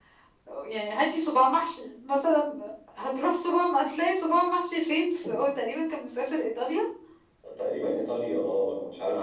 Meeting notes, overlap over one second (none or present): none